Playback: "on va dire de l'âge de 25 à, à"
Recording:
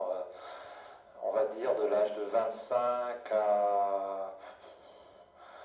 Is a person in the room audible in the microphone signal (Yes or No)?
No